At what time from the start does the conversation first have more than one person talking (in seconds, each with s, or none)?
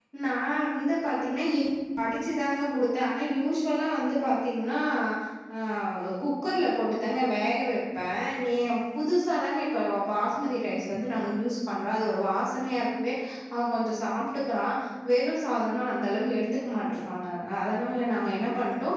none